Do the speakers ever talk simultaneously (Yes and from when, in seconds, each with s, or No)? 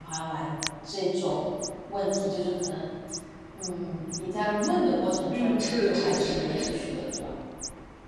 Yes, from 5.3 s